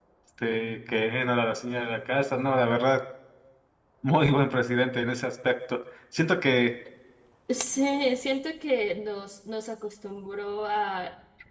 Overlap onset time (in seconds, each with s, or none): none